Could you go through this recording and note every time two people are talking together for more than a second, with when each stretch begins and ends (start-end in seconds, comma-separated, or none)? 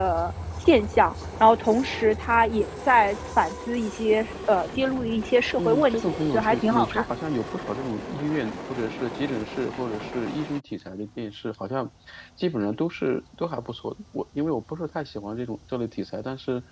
5.6-7.0